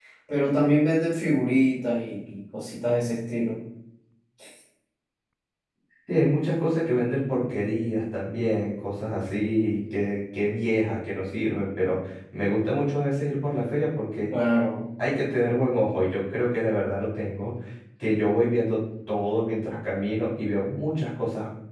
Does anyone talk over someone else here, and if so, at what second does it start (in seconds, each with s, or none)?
none